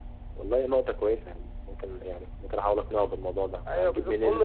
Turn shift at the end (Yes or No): Yes